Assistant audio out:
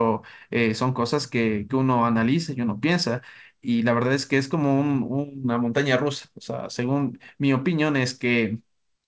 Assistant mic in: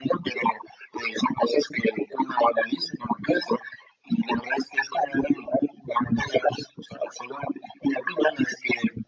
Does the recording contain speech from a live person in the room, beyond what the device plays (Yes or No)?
No